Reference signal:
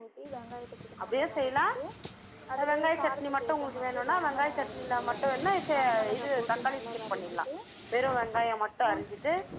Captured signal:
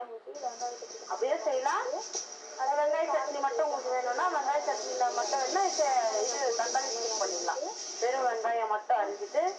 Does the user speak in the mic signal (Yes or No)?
No